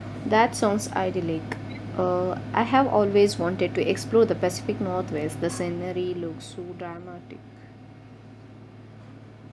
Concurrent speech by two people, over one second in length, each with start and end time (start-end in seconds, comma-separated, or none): none